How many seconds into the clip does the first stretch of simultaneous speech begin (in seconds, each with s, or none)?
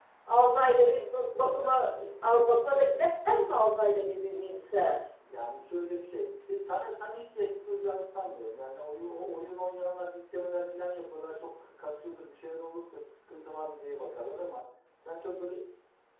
none